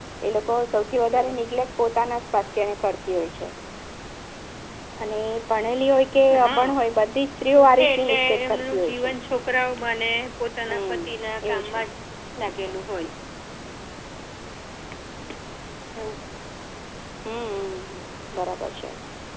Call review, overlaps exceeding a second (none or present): present